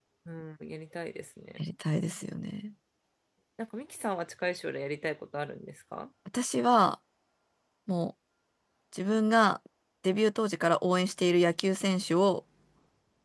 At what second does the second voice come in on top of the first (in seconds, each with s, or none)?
none